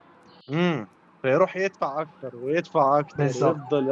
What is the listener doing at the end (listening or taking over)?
taking over